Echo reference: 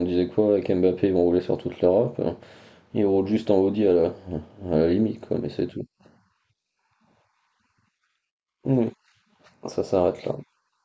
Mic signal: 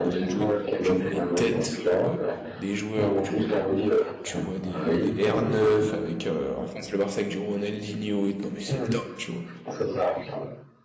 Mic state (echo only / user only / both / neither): both